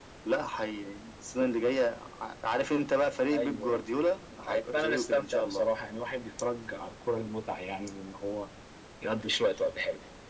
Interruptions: present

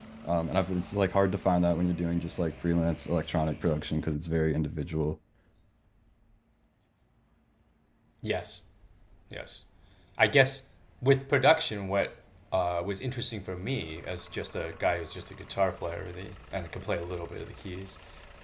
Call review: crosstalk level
none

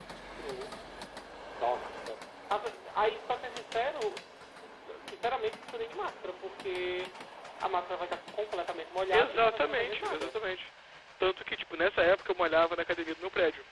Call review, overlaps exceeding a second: present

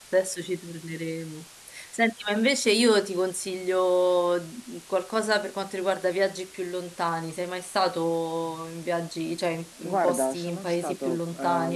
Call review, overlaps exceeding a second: present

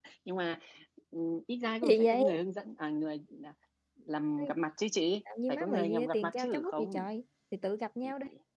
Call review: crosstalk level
present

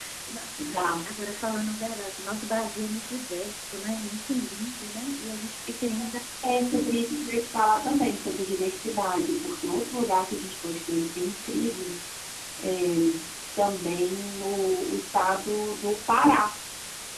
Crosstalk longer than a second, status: none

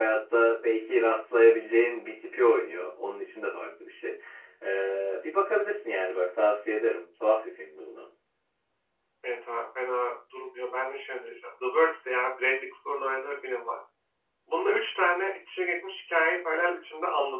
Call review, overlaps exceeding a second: none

